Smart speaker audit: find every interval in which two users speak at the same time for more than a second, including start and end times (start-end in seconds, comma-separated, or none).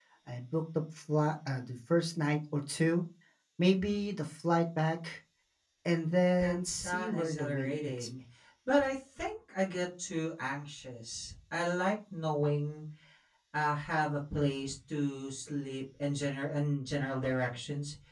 6.4-8.1